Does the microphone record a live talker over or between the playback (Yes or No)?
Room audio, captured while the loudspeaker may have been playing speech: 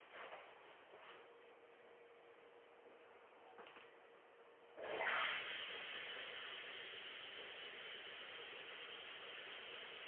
No